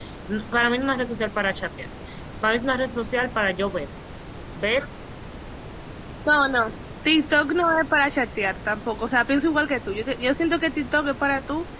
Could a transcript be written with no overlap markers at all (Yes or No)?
Yes